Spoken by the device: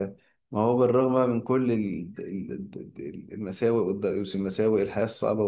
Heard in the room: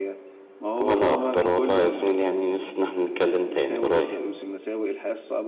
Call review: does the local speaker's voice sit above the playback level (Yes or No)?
Yes